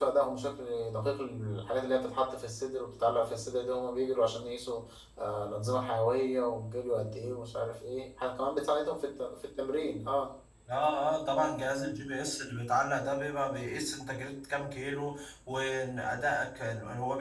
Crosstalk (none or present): none